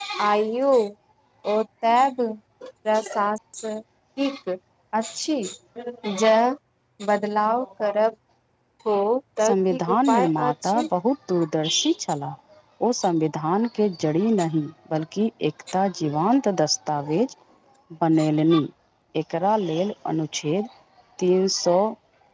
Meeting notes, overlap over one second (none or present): present